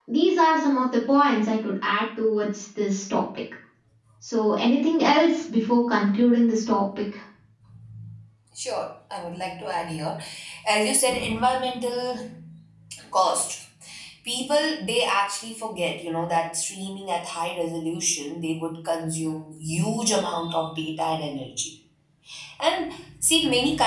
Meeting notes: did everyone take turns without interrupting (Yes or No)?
Yes